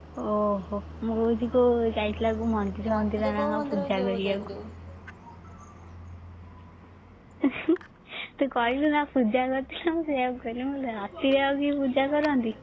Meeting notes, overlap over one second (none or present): present